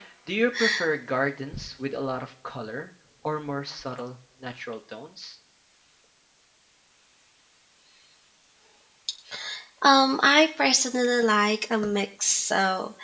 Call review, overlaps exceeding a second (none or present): none